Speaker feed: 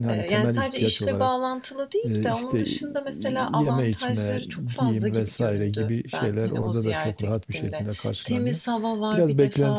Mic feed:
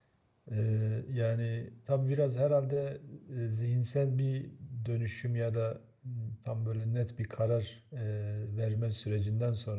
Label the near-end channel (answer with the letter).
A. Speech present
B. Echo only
A